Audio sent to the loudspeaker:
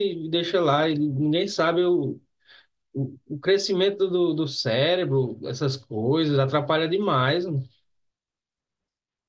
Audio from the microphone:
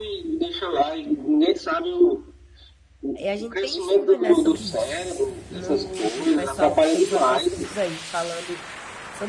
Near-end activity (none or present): present